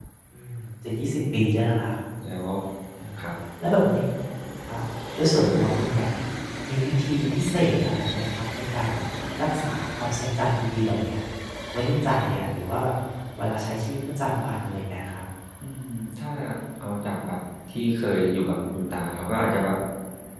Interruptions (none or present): none